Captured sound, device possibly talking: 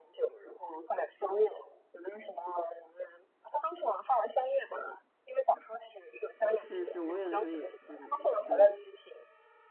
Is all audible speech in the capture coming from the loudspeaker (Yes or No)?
No